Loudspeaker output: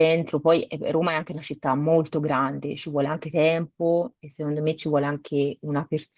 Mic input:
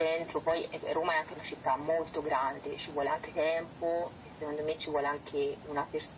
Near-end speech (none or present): none